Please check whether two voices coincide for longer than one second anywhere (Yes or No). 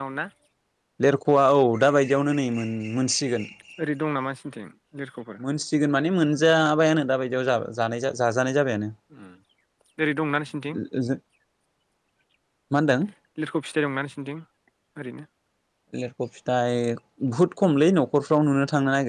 No